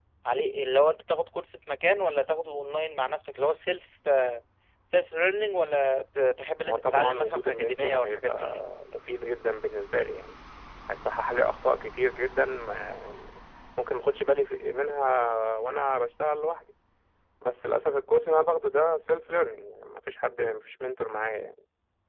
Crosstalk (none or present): present